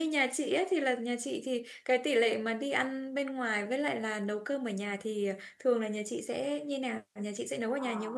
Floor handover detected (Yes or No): Yes